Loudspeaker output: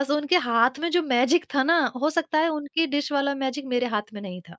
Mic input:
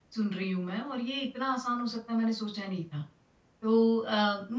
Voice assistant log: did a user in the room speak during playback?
Yes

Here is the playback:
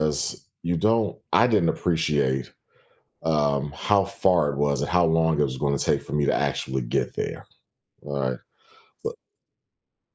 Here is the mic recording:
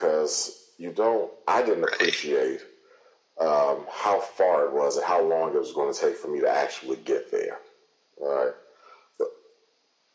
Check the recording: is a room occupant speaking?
Yes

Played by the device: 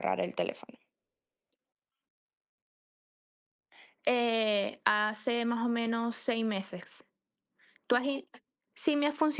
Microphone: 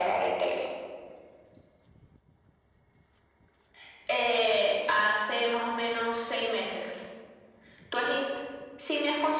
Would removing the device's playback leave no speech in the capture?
Yes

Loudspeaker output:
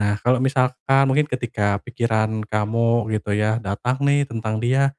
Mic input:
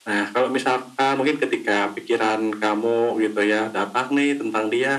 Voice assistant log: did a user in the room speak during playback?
No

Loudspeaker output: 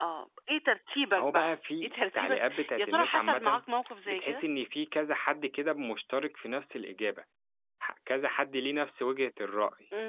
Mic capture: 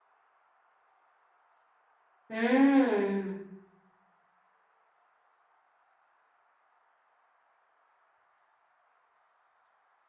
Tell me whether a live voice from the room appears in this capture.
Yes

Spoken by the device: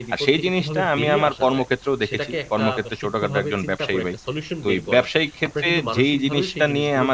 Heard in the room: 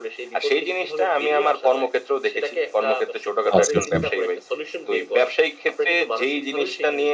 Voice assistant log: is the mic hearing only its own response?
No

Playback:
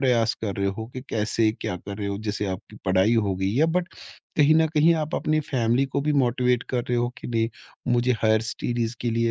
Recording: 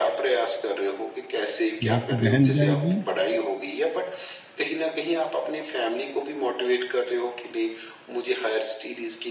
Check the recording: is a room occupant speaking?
Yes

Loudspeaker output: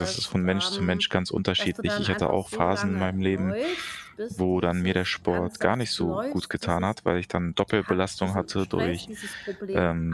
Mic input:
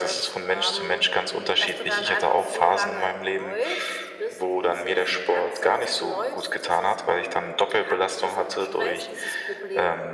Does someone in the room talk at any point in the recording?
No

